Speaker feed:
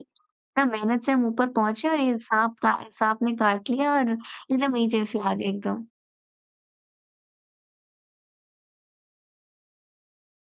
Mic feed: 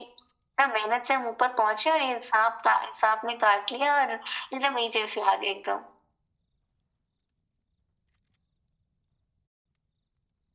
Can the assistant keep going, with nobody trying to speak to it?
Yes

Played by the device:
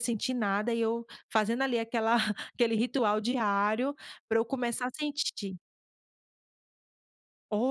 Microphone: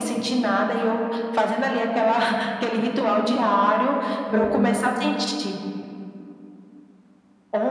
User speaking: Yes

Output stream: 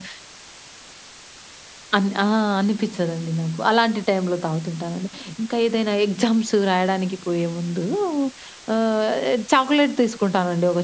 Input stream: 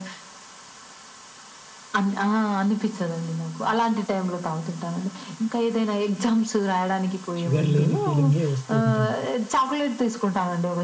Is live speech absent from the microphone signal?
No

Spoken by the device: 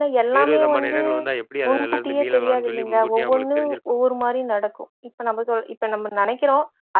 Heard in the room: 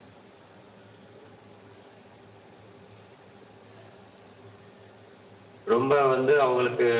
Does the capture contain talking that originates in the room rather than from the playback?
Yes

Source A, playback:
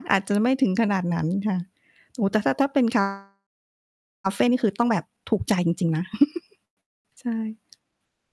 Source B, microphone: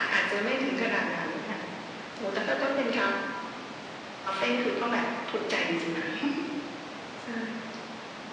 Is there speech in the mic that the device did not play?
No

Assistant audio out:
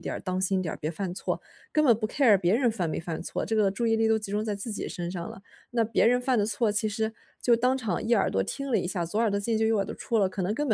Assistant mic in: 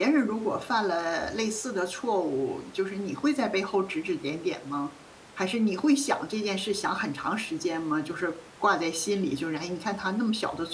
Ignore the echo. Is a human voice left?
Yes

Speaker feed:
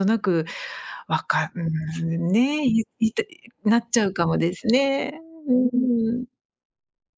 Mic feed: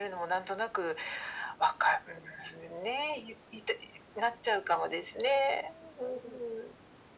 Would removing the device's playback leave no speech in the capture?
Yes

